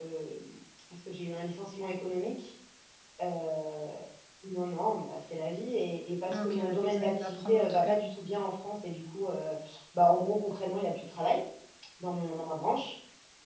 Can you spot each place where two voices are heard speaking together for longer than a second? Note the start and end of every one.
6.3-8.0

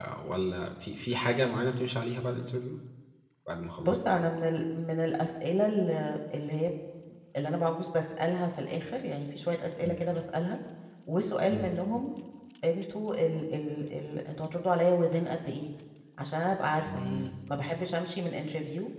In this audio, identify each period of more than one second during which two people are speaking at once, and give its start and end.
none

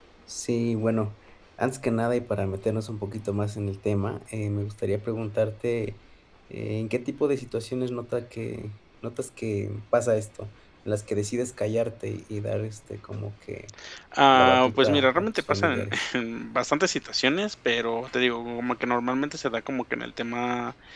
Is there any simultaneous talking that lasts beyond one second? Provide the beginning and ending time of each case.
14.3-15.9

